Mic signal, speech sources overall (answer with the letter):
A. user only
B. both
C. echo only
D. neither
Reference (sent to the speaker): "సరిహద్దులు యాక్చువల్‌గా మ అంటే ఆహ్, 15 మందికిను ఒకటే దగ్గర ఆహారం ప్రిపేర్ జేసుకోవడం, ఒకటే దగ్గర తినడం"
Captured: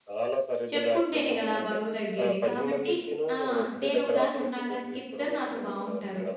B